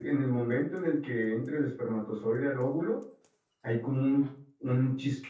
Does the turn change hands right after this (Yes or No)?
No